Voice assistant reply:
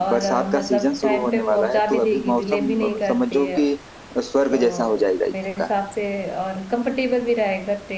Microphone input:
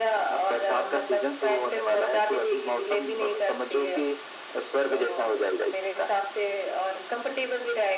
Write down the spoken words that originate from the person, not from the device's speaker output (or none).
none